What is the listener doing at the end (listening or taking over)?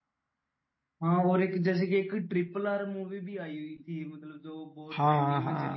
taking over